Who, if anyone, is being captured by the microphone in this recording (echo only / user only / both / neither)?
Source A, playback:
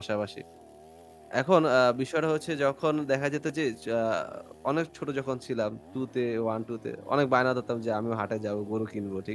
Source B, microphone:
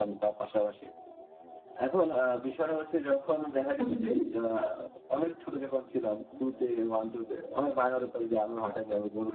both